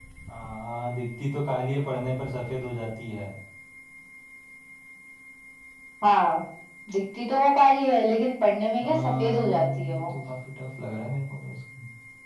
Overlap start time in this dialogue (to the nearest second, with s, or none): 9 s